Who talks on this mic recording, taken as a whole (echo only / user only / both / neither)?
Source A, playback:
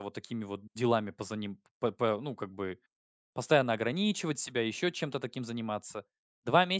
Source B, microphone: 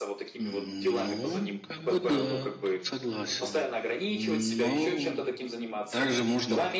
both